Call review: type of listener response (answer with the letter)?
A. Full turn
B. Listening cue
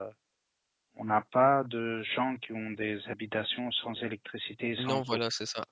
A